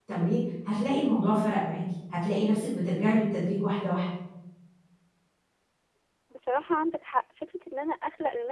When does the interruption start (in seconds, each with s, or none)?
none